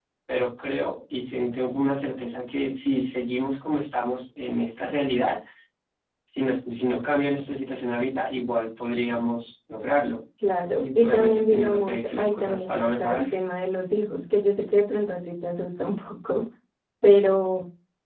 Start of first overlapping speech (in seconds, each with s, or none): 10.8 s